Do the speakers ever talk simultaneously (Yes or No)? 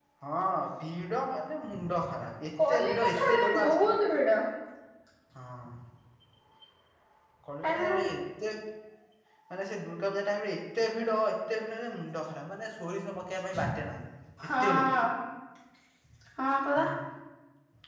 Yes